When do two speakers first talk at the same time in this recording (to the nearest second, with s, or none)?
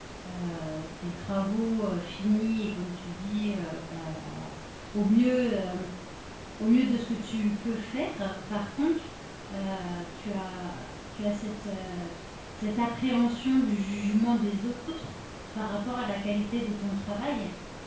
none